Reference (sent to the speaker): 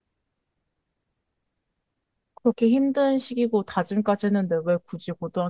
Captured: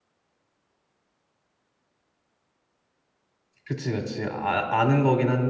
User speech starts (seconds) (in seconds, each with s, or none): 3.6 s